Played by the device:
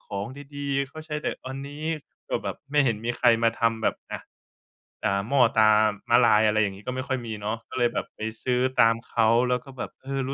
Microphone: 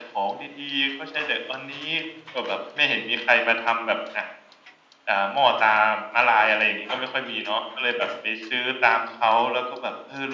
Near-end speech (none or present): none